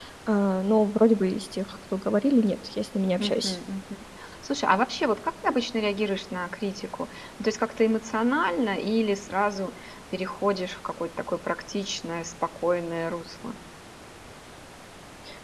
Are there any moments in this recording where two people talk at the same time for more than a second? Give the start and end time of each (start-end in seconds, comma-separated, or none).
none